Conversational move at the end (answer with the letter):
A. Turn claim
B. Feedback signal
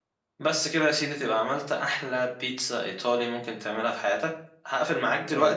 A